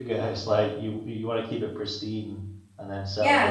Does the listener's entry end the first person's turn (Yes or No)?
Yes